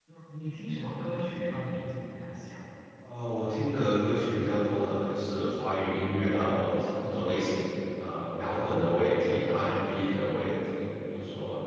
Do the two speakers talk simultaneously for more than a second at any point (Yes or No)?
No